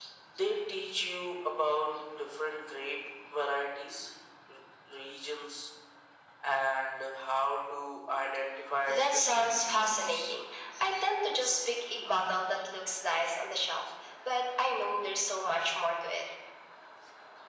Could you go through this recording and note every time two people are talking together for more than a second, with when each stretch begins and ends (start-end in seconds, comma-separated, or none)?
8.9-10.3